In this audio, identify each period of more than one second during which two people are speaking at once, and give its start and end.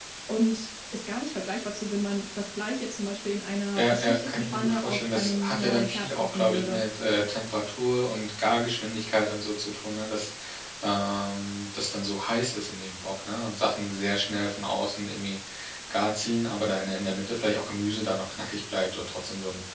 3.8-6.8

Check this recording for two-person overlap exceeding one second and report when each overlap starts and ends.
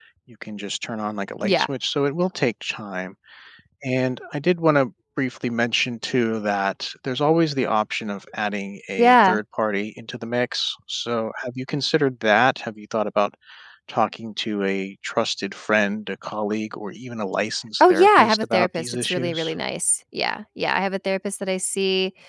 17.8-19.5

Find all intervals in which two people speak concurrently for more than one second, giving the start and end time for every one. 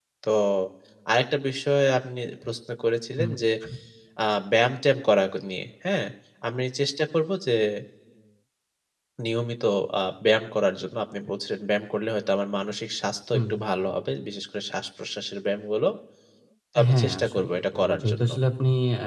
16.9-18.3

